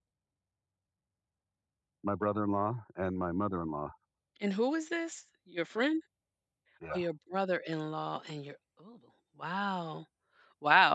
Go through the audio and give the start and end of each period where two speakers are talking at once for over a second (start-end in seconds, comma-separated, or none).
none